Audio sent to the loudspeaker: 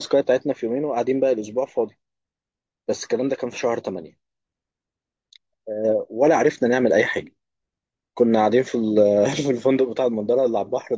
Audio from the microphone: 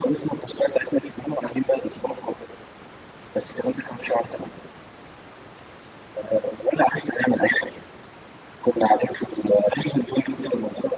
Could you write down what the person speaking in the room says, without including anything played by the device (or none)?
none